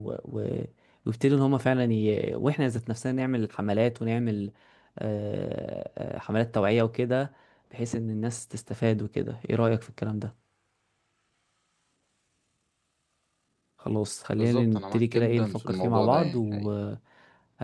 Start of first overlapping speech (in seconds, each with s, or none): 14.4 s